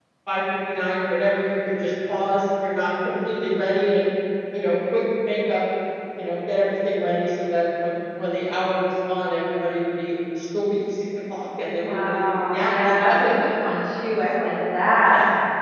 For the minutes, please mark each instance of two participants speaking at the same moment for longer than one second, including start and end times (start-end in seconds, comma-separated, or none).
11.7-12.9